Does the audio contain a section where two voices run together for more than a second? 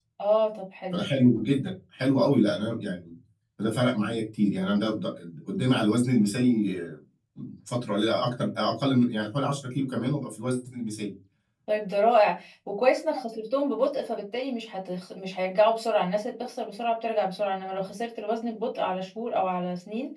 No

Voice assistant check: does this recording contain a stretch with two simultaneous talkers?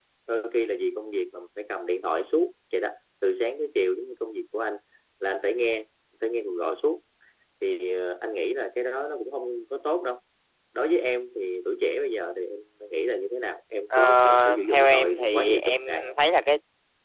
Yes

